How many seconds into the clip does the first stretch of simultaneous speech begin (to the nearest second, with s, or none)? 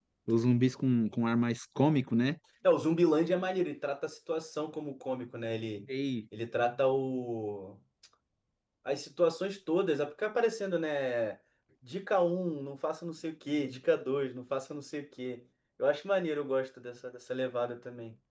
none